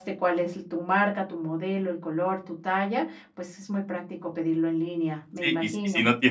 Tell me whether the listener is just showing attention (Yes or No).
No